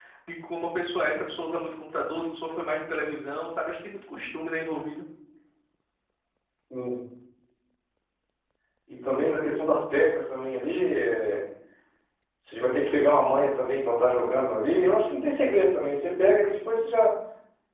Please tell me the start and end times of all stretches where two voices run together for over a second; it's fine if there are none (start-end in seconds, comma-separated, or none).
none